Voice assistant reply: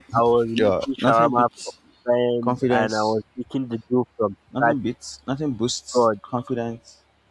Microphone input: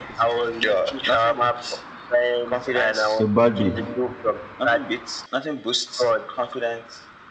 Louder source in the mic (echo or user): user